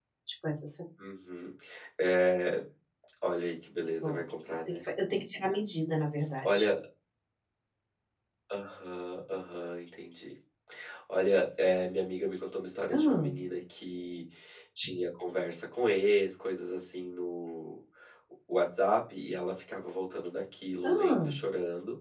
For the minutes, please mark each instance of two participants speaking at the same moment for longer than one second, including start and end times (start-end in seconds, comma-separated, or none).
none